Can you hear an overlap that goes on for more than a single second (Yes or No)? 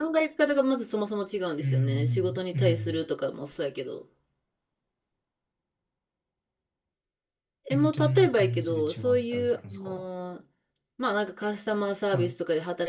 Yes